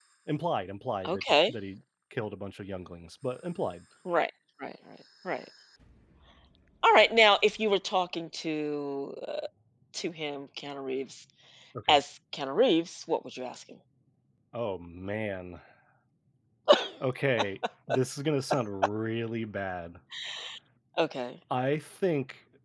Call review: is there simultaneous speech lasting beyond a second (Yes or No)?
No